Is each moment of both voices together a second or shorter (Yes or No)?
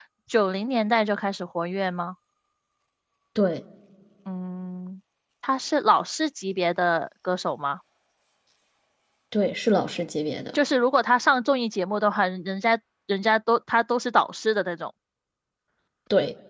Yes